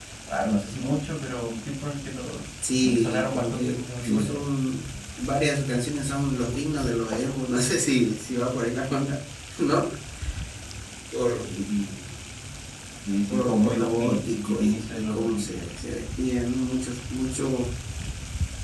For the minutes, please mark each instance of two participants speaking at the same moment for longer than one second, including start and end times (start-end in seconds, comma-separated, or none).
2.8-4.4, 13.3-15.8